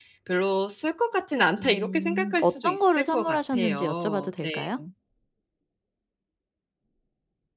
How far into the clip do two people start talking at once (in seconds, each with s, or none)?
1.6 s